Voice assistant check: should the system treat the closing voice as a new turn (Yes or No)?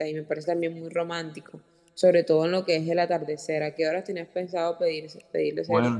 Yes